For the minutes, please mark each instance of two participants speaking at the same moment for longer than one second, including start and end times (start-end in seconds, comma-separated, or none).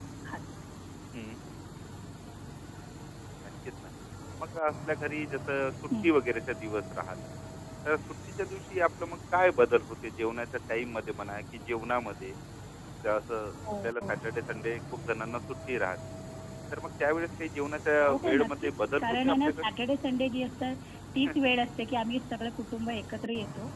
18.0-19.7